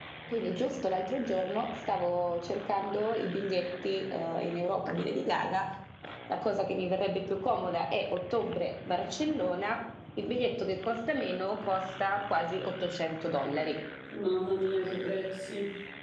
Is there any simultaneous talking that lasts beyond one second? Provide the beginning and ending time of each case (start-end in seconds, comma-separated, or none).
none